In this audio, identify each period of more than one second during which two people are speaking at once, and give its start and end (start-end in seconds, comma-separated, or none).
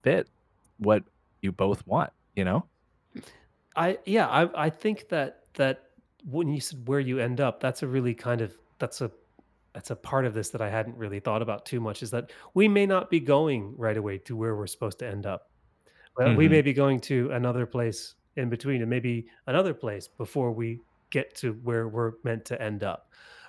none